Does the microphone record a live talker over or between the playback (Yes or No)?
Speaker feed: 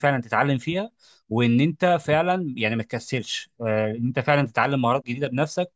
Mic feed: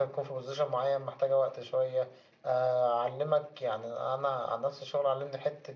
Yes